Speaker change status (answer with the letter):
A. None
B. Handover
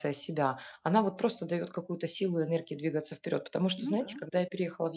A